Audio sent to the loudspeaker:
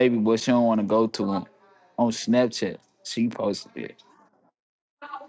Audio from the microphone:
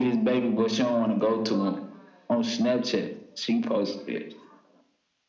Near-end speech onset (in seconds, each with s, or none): none